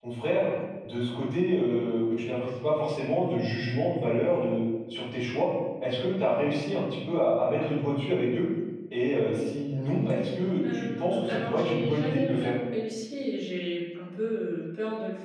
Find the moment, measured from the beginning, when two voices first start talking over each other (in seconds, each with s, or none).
10.7 s